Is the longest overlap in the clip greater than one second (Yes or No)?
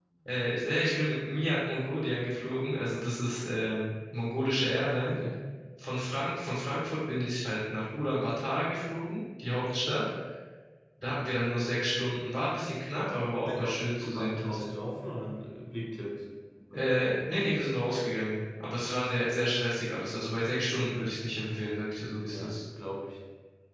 Yes